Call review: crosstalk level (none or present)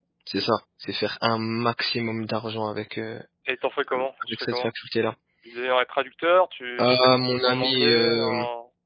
present